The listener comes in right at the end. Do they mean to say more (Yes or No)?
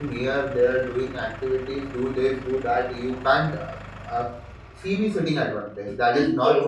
Yes